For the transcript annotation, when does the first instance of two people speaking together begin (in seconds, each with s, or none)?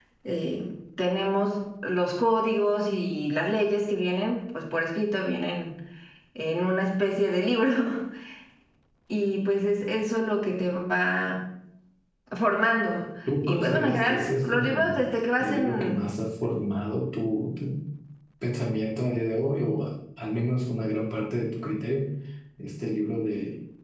13.3 s